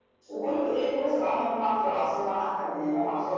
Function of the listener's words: listening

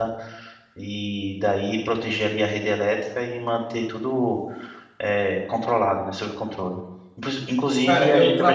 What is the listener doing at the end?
taking over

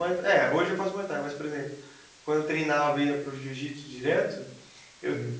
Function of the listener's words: listening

